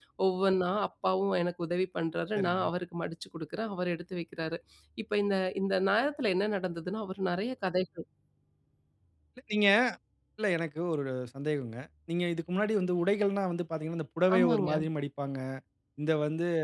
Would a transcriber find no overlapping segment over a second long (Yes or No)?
Yes